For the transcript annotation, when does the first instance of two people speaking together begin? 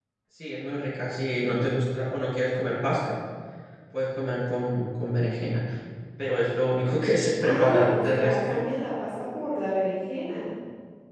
7.4 s

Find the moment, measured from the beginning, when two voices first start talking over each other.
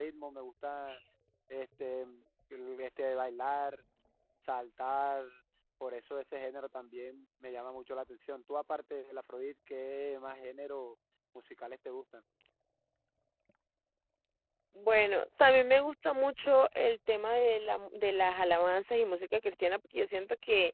none

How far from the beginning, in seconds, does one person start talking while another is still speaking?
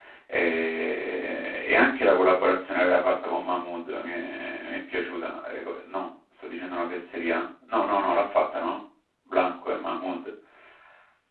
none

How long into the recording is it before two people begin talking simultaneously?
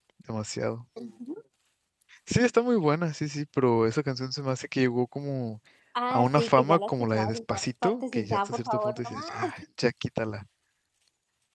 6.1 s

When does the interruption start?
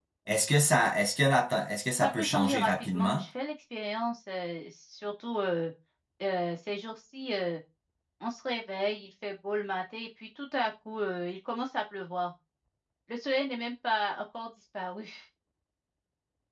2.0 s

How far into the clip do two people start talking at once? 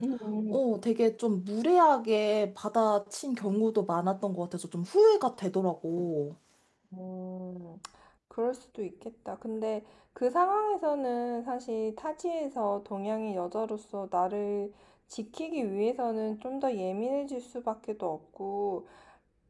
none

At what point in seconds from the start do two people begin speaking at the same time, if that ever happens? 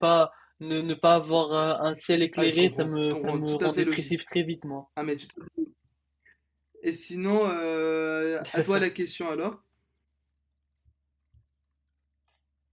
2.4 s

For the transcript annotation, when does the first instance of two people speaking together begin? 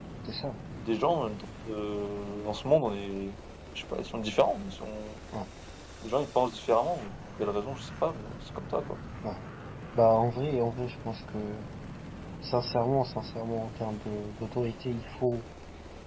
none

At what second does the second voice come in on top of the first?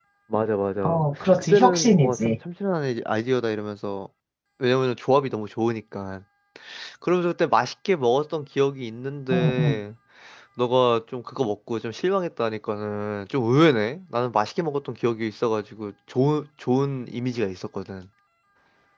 0.8 s

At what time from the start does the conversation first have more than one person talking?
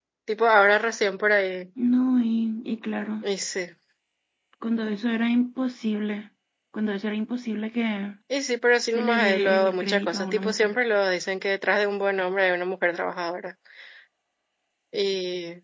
8.9 s

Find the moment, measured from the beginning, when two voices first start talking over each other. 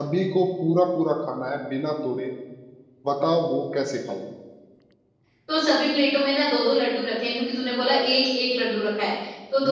none

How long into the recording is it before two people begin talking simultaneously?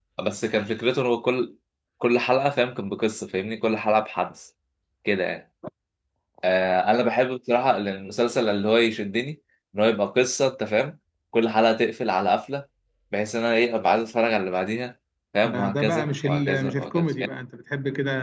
15.4 s

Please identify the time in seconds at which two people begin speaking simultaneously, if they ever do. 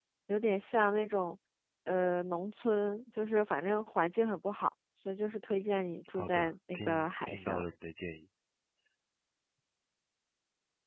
6.2 s

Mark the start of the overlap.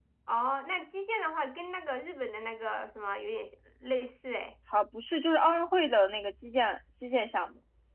none

